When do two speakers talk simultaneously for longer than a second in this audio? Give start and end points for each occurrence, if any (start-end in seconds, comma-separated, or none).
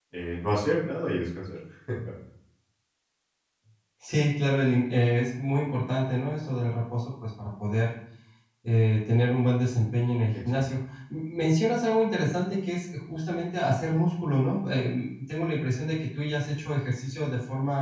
none